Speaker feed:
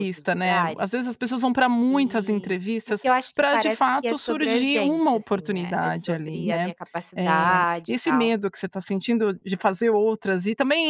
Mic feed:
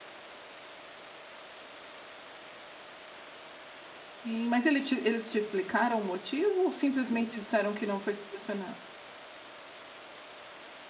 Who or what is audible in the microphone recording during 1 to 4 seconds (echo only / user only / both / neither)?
neither